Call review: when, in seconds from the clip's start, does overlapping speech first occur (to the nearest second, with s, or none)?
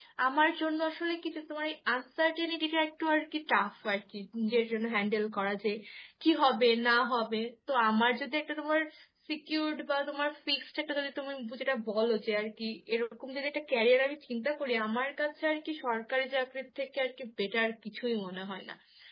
none